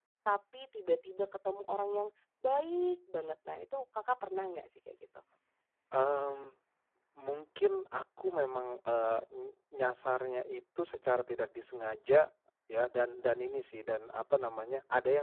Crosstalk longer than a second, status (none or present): none